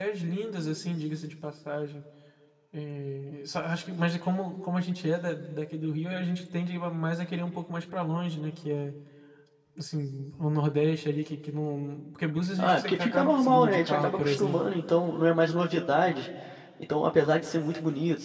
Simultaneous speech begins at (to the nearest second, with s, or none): 13 s